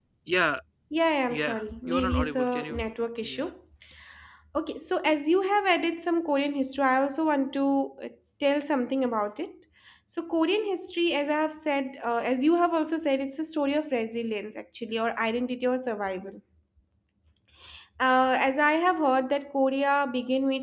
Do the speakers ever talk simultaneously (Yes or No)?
Yes